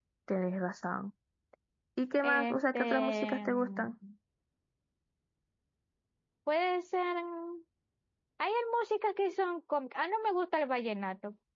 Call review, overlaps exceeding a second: present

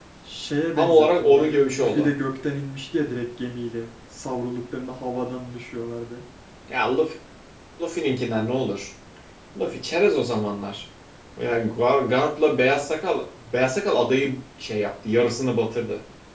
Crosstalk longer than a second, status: present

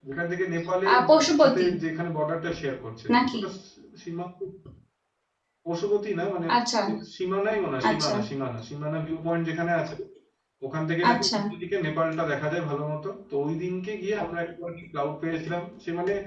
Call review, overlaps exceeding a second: none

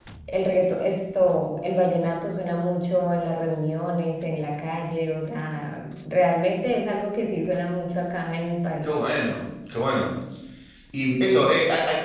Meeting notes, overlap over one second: none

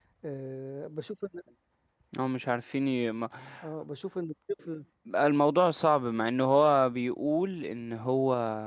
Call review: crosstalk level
none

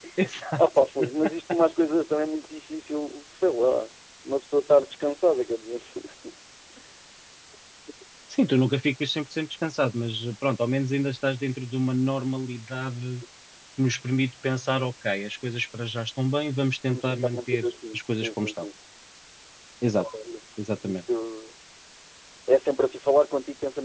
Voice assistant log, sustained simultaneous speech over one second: present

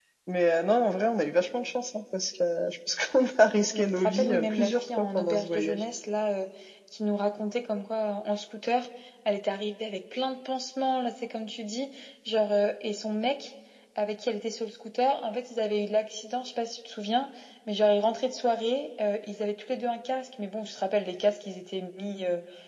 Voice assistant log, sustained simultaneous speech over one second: present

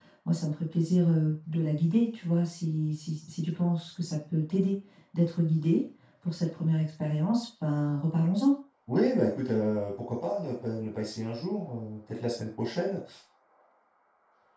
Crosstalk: none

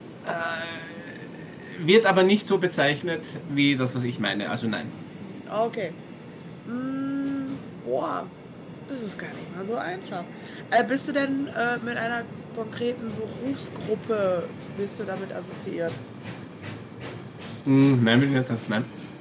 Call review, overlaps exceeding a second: none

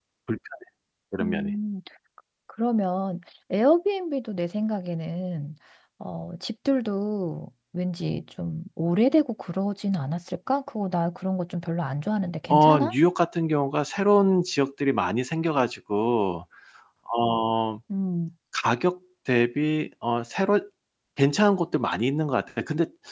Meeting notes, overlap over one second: none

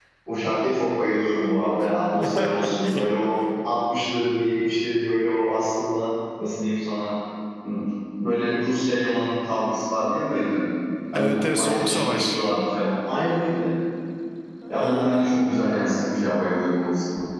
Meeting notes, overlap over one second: present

